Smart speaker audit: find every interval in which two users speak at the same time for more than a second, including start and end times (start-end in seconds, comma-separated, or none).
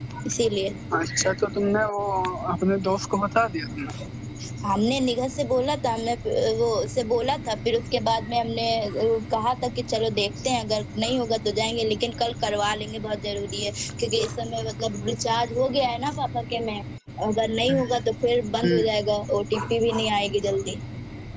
none